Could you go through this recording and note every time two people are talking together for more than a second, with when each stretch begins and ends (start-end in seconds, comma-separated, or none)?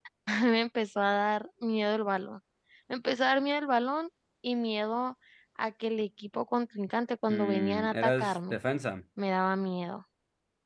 7.3-8.6